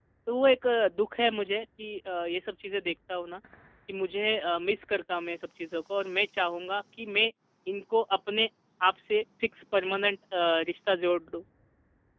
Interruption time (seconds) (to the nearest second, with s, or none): none